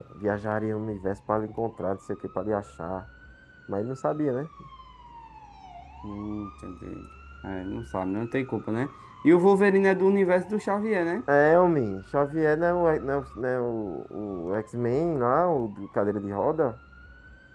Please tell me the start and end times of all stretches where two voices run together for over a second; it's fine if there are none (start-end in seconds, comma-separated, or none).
none